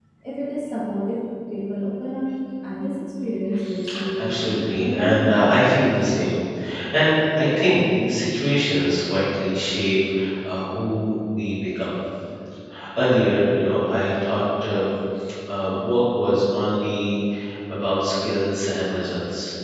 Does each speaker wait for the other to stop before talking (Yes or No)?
No